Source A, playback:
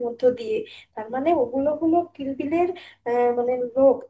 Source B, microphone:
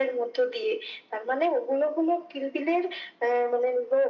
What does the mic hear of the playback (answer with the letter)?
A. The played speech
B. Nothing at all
A